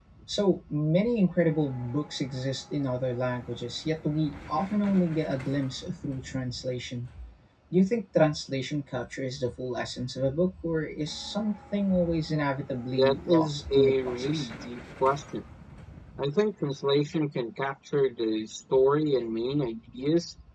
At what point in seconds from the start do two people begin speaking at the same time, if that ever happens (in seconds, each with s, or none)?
12.9 s